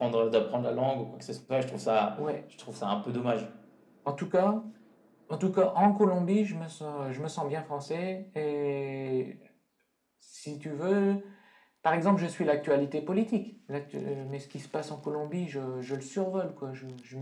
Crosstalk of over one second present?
No

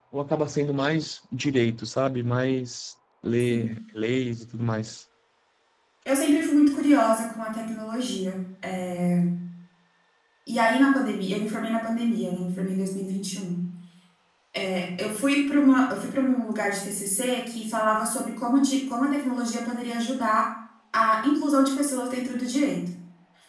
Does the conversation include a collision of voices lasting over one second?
No

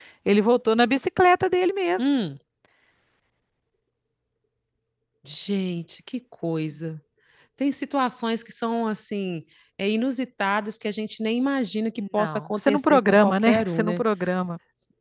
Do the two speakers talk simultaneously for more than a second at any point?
Yes, from 12.0 s

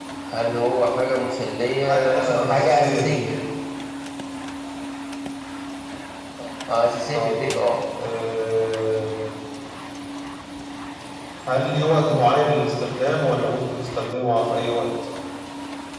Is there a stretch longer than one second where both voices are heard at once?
Yes, from 1.8 s

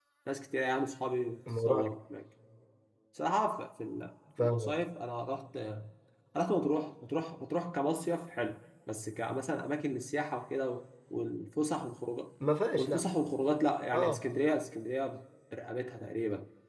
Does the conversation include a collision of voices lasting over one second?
No

